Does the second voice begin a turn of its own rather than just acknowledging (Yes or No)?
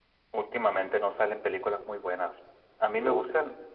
No